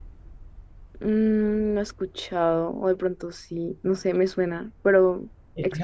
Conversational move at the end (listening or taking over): taking over